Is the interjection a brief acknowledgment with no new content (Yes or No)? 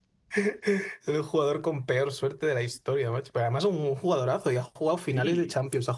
Yes